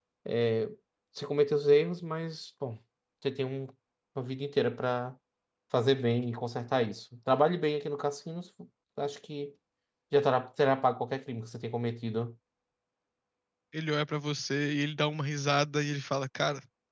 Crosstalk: none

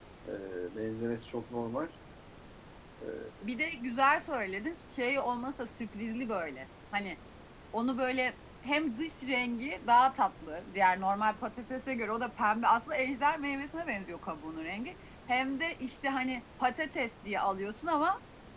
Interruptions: none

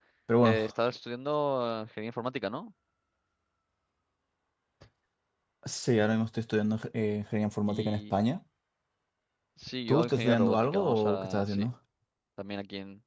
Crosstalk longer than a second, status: present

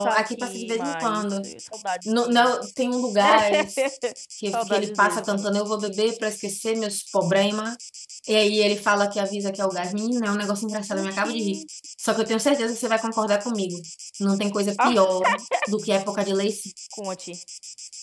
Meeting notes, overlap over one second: present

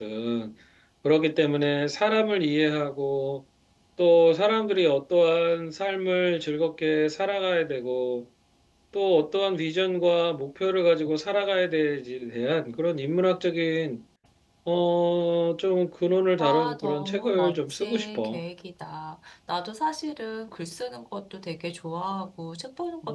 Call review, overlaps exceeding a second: present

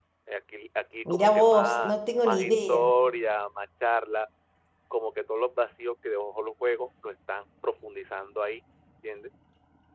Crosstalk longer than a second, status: present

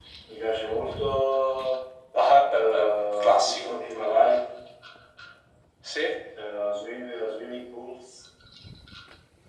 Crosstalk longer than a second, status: present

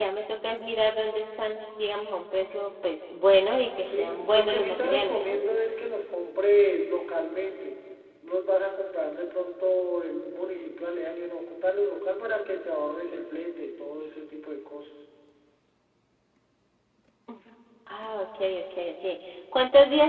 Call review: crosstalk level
present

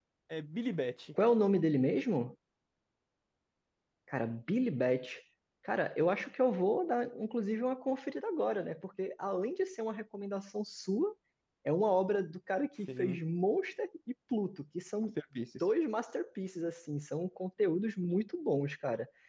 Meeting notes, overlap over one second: none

